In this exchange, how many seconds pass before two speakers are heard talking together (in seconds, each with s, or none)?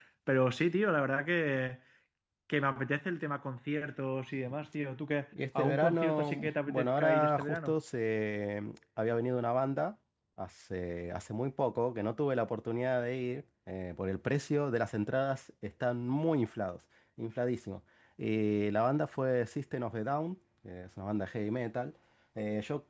5.6 s